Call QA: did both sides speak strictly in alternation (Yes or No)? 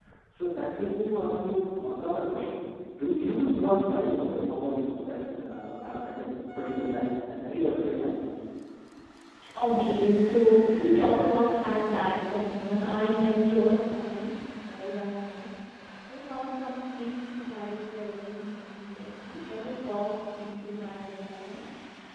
Yes